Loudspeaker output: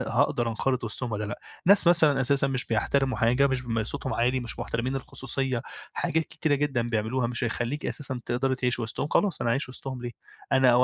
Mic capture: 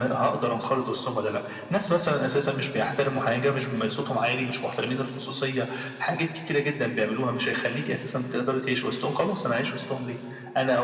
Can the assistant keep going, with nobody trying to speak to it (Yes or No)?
Yes